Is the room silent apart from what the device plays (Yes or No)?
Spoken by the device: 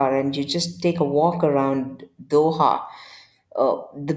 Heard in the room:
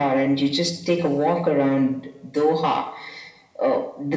Yes